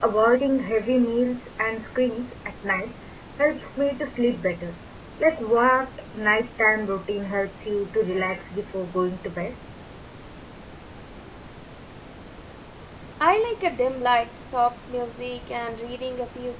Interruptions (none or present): none